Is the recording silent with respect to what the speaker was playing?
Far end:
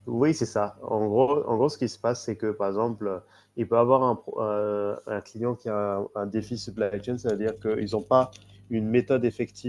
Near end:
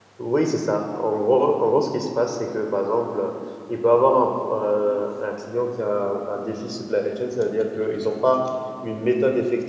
No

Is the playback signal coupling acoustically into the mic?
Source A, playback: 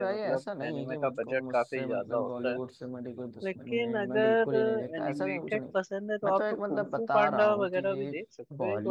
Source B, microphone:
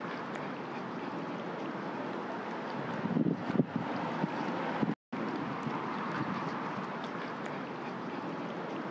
No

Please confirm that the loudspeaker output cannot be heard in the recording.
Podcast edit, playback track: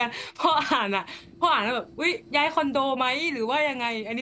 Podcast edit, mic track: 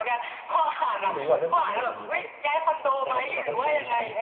No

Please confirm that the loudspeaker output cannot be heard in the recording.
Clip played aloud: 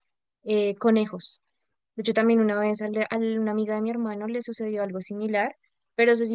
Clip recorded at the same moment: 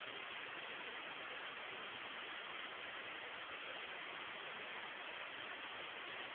Yes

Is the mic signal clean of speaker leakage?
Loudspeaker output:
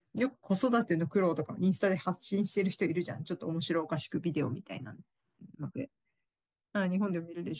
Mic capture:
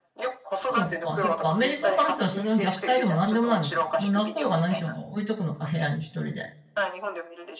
No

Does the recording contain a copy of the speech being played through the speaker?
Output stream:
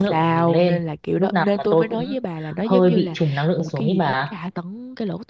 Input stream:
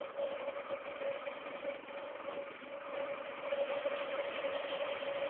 No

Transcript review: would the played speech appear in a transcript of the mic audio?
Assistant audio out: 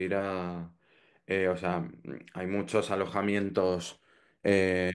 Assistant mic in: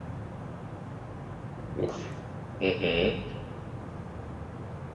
No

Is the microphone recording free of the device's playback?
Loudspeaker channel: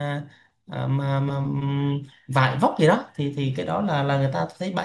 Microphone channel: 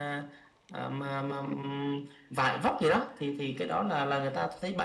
No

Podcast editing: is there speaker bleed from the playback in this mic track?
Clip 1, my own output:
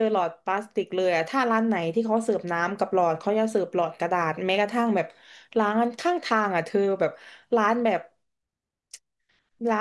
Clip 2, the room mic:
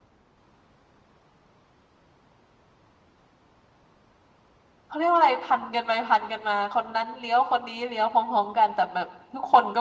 No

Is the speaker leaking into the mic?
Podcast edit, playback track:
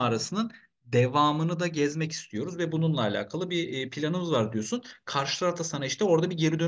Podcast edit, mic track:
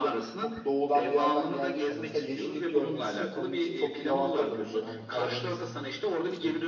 Yes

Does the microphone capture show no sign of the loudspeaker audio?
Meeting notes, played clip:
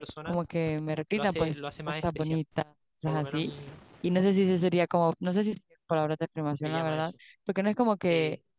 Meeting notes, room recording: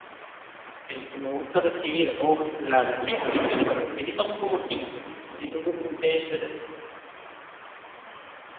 Yes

